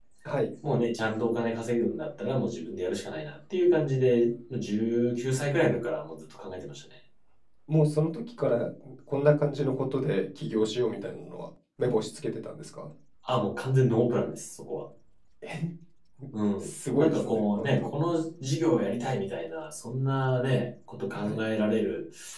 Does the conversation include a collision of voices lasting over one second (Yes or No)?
Yes